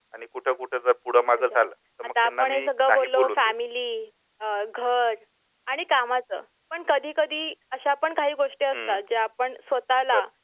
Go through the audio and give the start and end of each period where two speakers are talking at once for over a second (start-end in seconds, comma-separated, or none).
2.0-3.5